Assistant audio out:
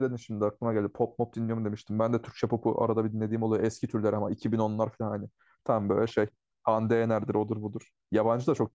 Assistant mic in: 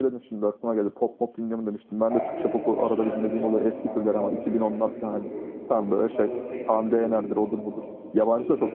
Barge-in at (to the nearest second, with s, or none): 2 s